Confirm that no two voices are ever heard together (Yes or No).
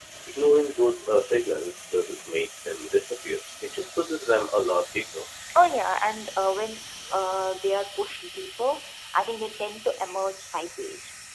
Yes